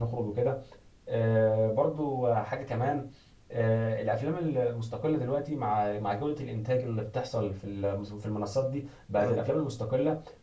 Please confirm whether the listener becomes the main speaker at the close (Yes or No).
No